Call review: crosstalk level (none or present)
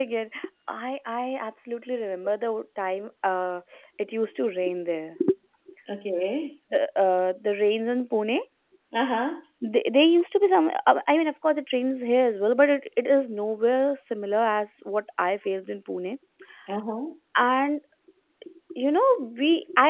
none